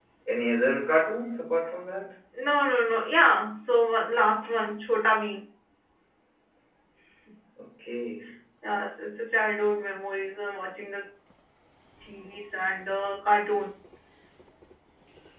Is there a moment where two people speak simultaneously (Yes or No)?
No